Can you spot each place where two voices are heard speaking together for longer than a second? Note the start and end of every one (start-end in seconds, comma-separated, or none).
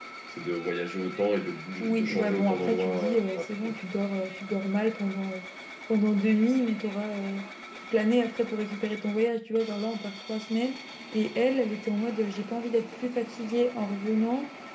1.8-3.7